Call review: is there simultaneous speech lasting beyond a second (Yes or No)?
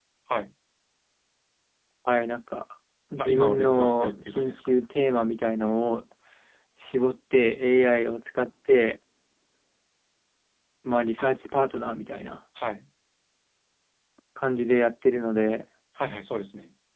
Yes